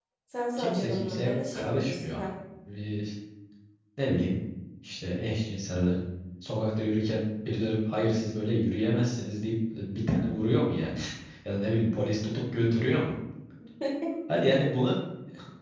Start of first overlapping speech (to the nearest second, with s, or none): 1 s